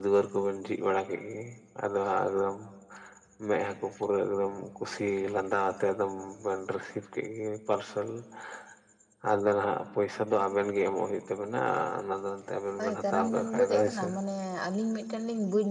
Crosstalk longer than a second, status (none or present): present